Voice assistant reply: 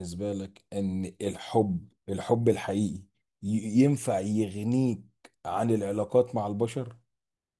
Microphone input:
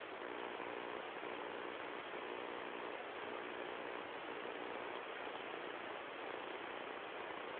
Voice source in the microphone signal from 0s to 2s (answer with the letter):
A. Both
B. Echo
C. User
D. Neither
D